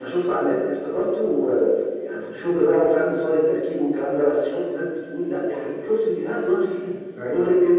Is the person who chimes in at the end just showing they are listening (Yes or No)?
Yes